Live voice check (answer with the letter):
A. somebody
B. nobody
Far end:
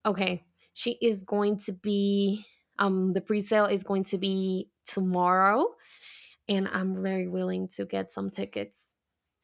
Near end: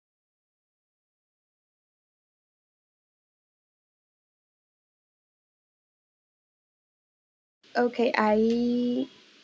A